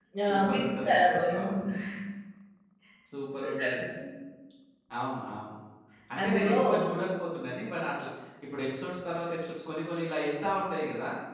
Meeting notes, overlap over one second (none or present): present